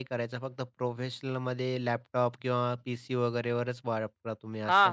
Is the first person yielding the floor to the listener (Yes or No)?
Yes